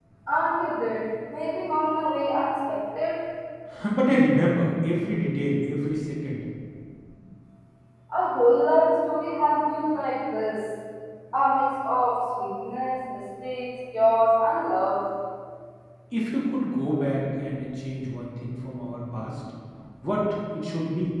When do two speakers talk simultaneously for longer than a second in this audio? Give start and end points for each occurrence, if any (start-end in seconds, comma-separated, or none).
none